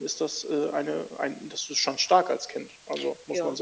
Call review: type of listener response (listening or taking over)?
taking over